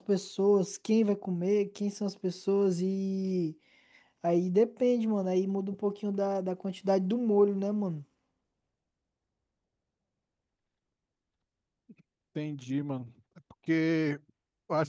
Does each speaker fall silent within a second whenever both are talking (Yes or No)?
Yes